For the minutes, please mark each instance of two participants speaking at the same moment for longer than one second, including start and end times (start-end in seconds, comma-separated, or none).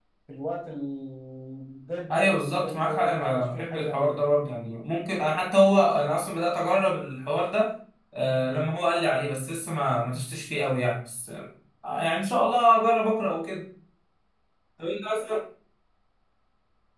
2.1-4.2